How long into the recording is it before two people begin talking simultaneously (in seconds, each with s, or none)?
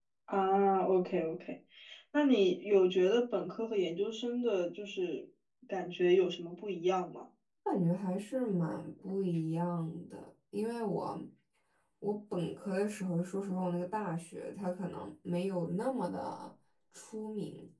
none